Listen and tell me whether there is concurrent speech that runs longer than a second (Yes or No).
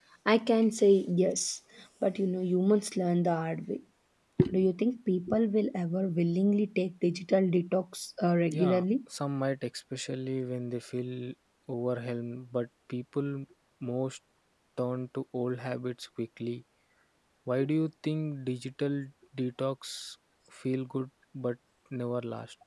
No